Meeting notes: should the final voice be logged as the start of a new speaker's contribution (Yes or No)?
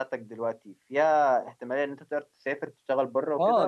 Yes